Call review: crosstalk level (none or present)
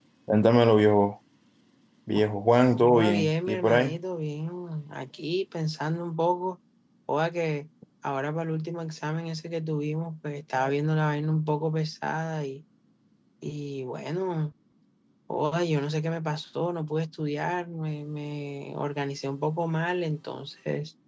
present